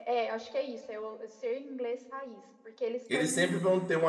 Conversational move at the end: taking over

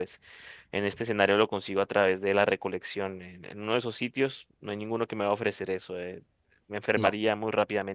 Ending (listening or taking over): listening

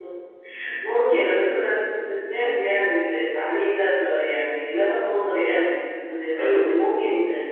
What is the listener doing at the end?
listening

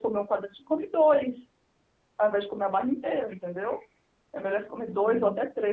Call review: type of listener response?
listening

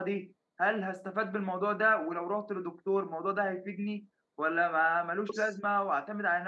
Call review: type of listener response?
listening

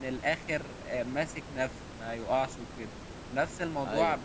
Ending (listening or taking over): listening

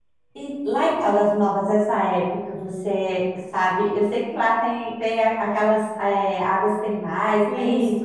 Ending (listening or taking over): taking over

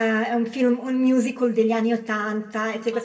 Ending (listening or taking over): listening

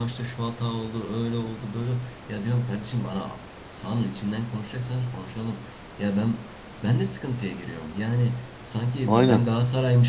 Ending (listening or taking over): listening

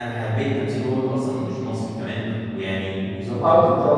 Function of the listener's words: taking over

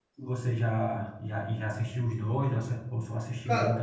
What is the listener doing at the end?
taking over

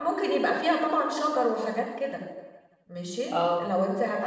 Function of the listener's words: listening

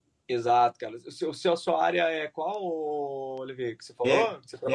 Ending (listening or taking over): taking over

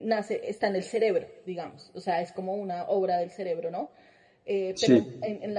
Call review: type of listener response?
listening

